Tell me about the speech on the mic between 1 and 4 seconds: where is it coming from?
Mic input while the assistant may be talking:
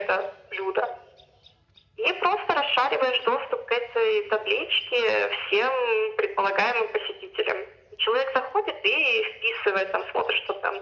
echo only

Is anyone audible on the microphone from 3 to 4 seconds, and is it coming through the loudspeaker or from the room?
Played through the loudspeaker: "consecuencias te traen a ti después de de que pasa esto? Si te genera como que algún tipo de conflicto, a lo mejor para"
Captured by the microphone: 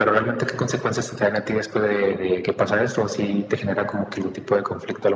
echo only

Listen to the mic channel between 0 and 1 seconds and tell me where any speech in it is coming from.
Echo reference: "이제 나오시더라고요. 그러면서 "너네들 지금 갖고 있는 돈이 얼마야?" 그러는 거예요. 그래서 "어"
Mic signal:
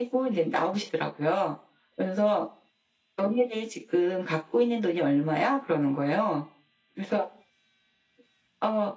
echo only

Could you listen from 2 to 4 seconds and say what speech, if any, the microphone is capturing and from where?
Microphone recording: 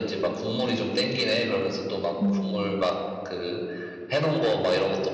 both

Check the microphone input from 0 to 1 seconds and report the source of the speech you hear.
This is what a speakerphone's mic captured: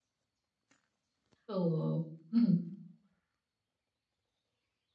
neither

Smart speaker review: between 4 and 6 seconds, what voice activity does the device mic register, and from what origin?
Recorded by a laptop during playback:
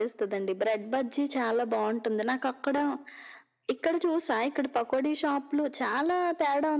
echo only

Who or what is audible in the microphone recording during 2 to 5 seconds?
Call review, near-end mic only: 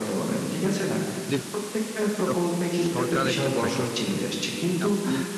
both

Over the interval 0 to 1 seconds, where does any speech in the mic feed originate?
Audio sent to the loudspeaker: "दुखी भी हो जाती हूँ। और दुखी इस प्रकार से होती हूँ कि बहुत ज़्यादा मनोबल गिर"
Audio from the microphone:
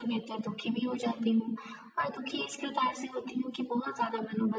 echo only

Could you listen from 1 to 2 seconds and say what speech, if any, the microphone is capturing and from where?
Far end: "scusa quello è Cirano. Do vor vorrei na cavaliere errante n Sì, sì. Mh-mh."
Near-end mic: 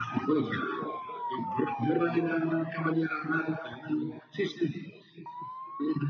echo only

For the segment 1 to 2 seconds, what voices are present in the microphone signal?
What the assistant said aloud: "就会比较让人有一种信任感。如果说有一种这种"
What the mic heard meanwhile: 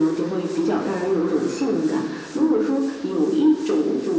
echo only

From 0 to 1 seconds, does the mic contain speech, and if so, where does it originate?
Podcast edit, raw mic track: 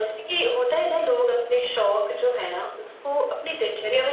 echo only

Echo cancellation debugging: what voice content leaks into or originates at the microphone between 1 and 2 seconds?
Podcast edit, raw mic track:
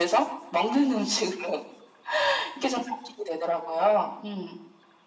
echo only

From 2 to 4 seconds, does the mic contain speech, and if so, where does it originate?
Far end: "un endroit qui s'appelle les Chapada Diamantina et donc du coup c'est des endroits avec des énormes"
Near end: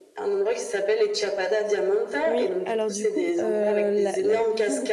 both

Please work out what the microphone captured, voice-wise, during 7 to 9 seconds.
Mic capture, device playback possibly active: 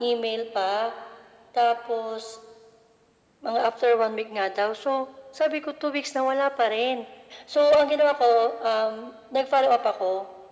echo only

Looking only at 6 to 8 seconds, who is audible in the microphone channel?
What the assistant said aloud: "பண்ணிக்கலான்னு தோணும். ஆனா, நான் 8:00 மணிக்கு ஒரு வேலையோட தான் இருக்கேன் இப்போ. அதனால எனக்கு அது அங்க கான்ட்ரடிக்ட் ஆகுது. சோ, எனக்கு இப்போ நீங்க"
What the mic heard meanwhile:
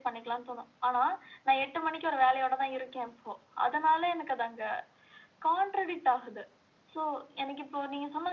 echo only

